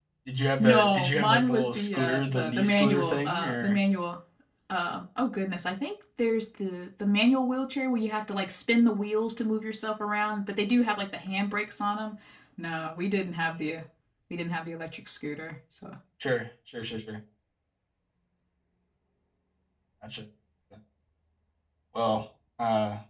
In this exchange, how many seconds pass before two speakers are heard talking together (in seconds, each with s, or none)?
0.6 s